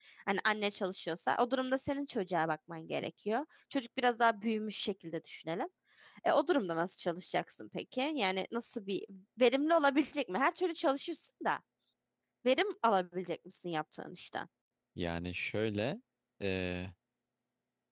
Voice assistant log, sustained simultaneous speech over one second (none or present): none